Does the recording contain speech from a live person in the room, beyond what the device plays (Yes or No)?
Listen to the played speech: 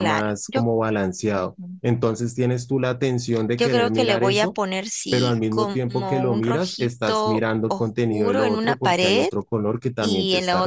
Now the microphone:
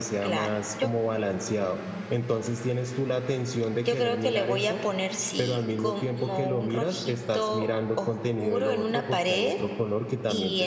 No